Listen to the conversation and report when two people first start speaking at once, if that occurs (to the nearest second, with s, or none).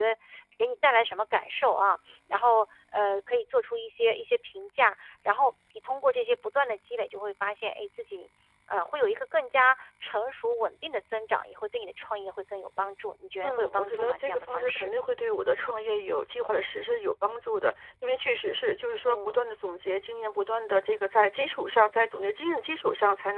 13 s